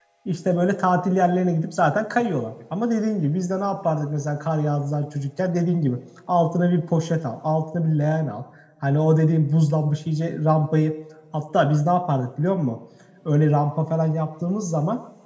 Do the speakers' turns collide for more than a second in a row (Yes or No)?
No